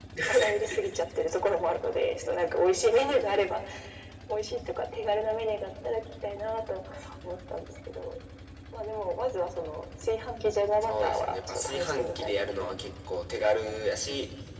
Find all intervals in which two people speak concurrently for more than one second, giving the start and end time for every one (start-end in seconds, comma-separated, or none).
10.9-12.7